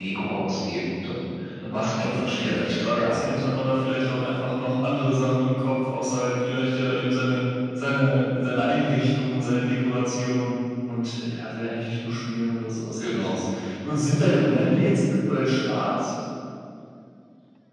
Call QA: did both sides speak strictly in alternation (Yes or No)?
No